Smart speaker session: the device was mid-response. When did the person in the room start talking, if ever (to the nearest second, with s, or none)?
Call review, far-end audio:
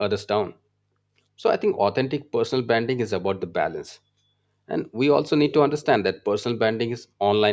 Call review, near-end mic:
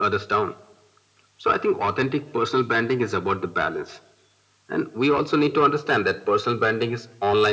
none